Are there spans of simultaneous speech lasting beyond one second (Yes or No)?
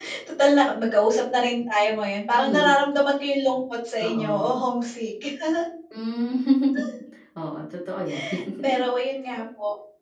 No